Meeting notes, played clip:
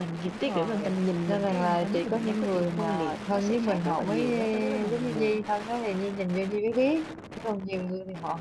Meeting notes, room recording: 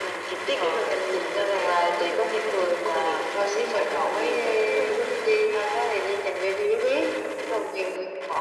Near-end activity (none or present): none